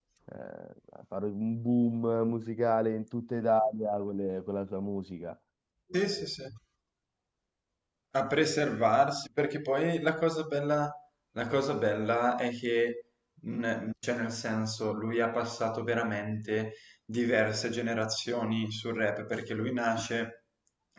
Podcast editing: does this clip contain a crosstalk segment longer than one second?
No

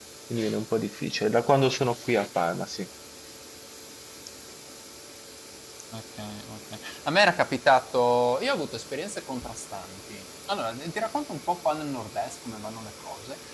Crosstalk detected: No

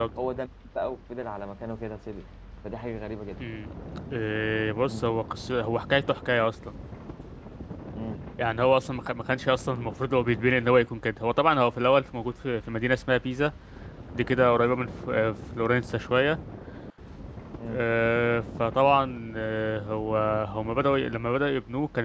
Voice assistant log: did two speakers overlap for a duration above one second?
No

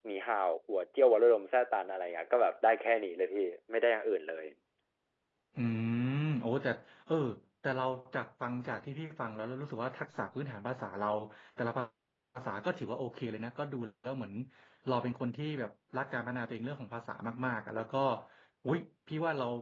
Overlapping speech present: No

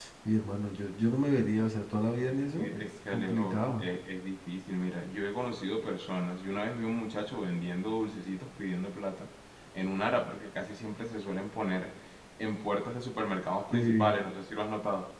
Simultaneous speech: Yes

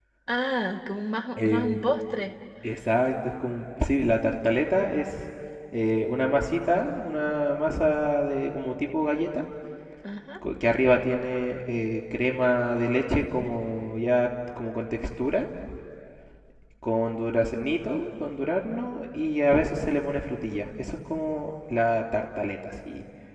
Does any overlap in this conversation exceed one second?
No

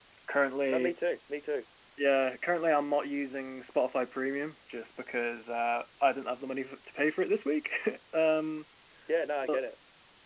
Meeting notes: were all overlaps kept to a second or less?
Yes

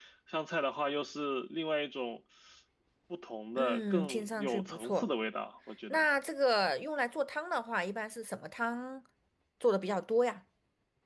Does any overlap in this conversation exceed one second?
Yes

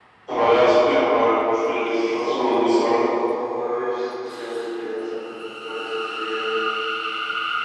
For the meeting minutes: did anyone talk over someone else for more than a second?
Yes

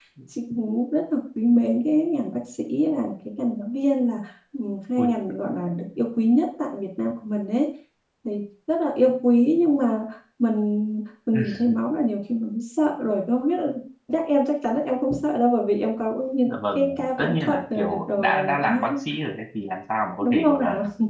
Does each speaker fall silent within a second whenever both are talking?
No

